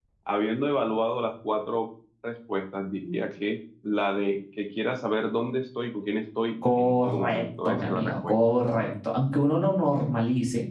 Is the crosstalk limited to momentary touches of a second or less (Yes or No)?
No